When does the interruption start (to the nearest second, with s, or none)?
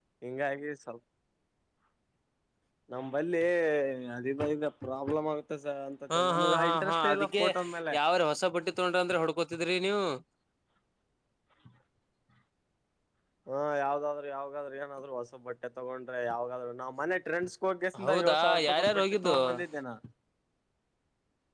6 s